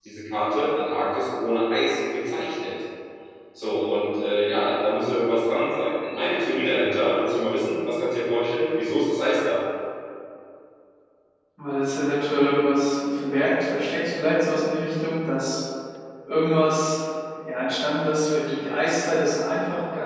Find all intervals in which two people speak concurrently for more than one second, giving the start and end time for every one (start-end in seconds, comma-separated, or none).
none